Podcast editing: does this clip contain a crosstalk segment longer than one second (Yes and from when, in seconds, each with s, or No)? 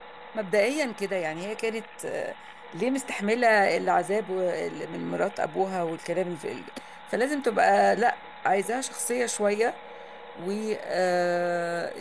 No